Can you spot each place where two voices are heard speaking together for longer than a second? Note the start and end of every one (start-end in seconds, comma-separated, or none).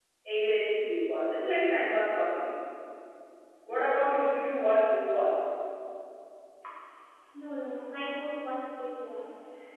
none